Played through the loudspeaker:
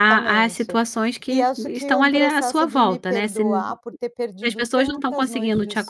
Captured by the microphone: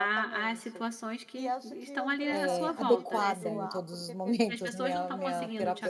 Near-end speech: present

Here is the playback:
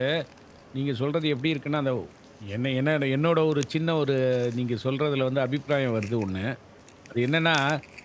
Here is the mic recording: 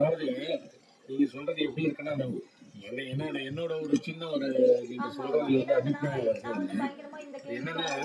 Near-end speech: present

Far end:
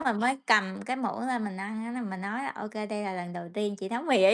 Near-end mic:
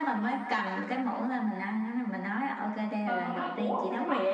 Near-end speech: present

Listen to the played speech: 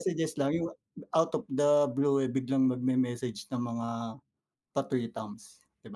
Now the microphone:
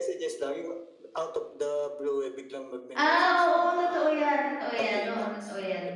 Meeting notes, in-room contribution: present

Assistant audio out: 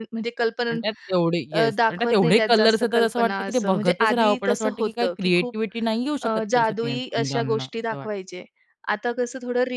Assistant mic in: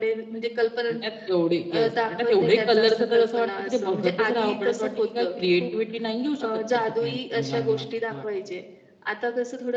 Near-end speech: none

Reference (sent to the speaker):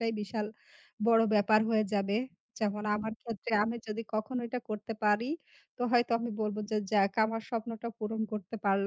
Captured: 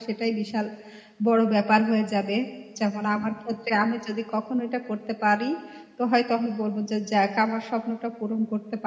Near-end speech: none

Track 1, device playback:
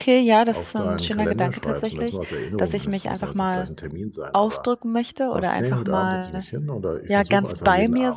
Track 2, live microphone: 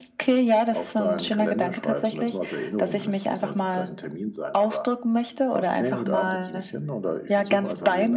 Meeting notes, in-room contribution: none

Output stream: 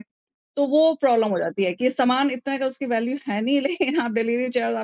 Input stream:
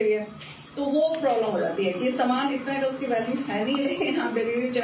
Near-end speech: none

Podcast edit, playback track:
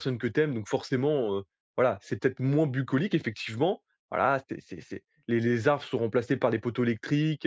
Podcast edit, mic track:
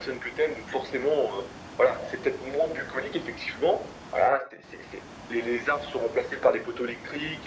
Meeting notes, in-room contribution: none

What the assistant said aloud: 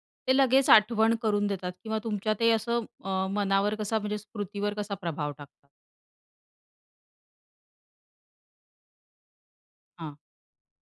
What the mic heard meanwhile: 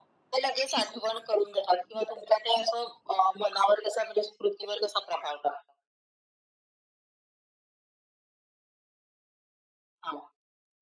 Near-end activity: none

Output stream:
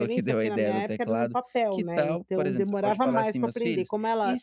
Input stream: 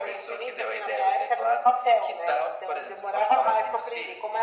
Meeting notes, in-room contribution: none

